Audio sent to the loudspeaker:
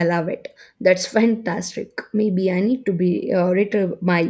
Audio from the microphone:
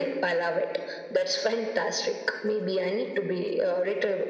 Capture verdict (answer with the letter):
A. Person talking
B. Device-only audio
B